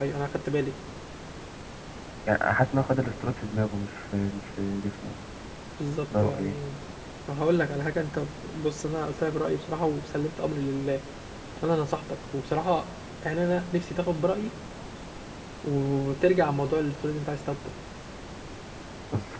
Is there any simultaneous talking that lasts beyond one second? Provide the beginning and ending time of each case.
none

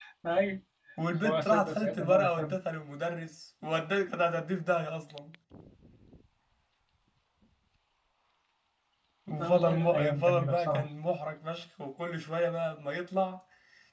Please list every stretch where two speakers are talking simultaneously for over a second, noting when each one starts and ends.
1.2-2.6, 9.4-10.8

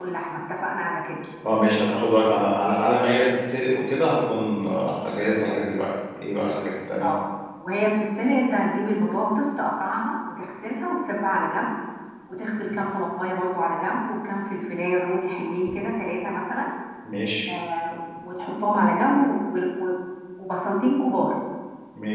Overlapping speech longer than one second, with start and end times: none

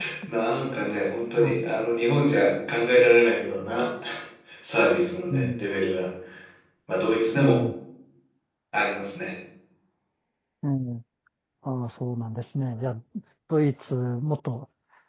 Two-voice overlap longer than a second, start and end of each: none

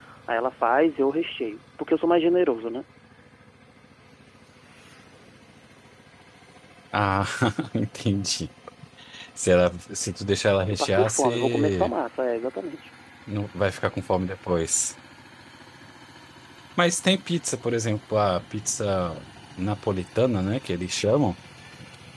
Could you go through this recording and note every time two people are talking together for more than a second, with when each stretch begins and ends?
10.7-11.9

